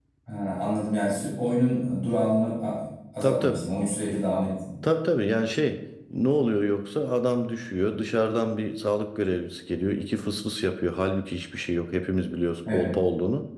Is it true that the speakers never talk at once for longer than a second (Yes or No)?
Yes